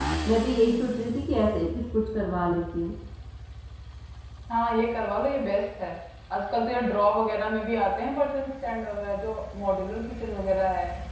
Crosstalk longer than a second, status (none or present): none